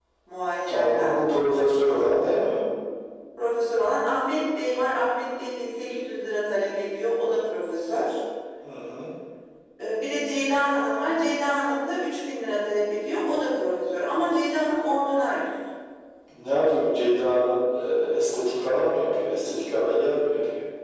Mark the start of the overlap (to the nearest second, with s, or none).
1 s